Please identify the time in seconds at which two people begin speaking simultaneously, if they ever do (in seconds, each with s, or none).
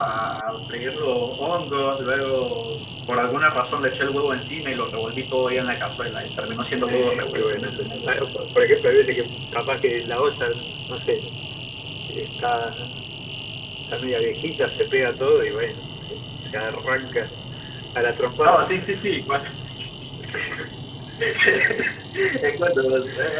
6.9 s